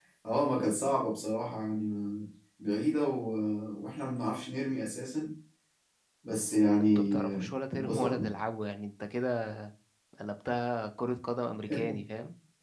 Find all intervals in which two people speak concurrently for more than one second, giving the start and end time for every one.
6.8-8.4

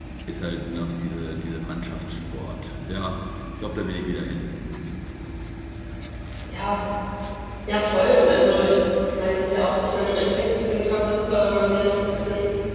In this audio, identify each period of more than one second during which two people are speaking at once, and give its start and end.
none

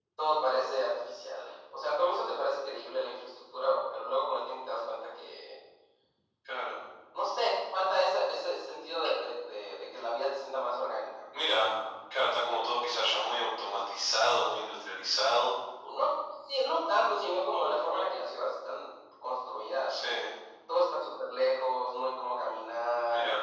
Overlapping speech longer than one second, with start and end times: none

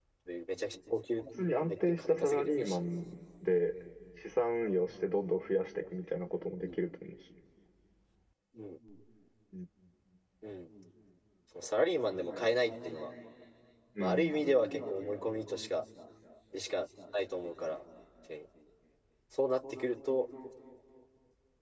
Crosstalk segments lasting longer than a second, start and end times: 1.6-2.8

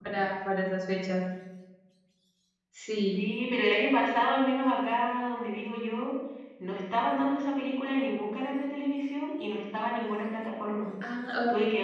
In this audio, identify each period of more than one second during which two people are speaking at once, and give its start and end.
none

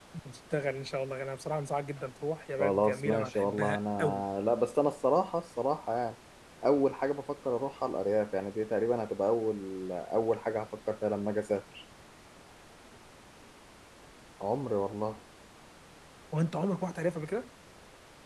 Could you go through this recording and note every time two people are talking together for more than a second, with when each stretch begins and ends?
2.6-4.2

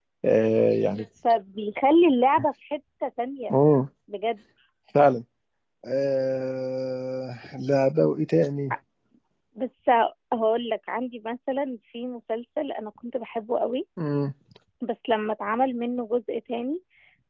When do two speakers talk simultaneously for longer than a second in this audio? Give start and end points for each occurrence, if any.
none

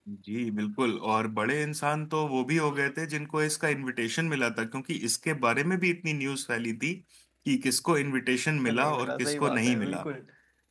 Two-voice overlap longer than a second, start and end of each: 8.7-10.1

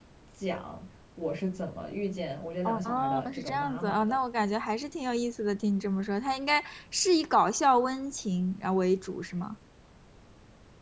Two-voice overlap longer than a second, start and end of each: 2.6-4.0

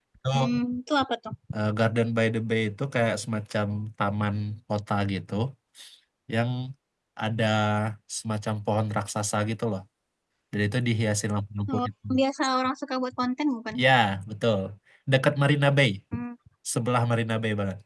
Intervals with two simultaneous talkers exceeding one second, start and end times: none

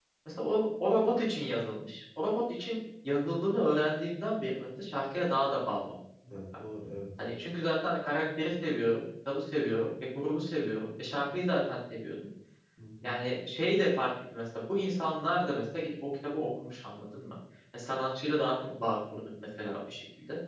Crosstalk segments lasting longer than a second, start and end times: none

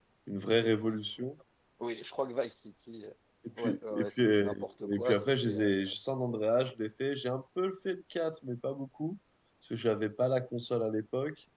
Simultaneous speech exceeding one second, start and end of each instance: 3.6-5.7

